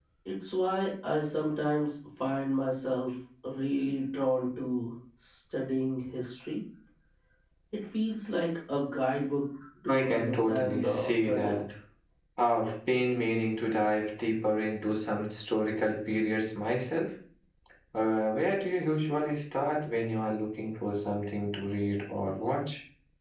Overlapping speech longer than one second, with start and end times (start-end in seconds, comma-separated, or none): 9.9-11.6